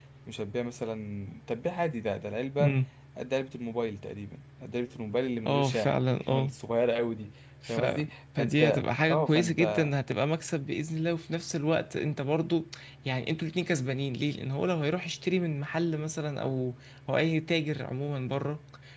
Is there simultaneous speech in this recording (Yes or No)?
Yes